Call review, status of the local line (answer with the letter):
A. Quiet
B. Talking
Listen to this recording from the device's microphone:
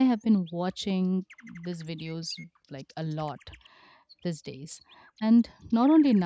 B